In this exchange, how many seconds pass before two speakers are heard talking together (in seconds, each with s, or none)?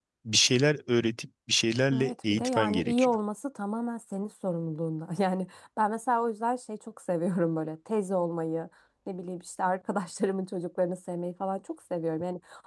1.9 s